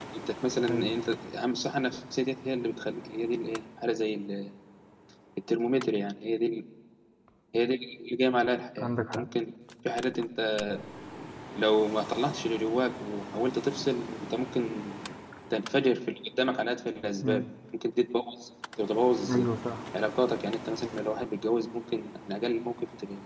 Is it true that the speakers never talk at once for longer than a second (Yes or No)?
Yes